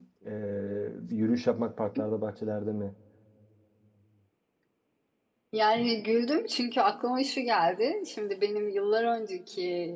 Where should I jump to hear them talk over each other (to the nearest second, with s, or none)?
none